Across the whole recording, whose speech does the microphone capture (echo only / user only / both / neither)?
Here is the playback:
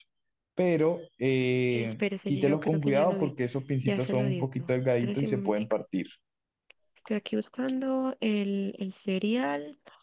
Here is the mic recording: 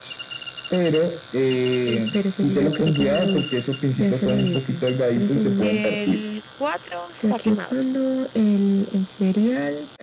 both